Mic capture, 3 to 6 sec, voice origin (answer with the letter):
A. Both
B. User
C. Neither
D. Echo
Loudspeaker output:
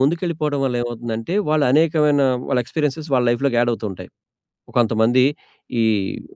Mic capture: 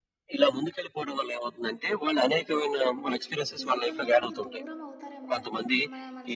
A